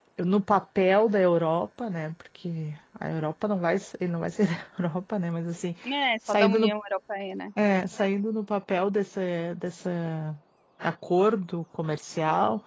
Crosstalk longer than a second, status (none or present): none